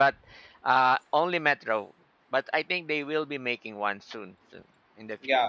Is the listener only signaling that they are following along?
No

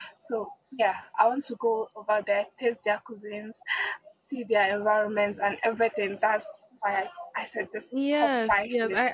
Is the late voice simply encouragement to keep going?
No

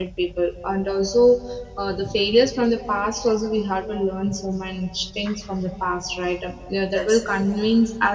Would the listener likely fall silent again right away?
Yes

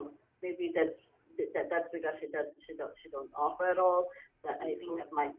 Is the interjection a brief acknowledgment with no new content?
Yes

